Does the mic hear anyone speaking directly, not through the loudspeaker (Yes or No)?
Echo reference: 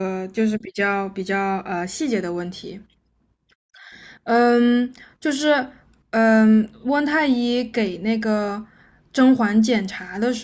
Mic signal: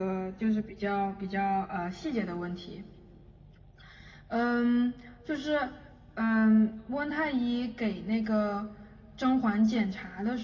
No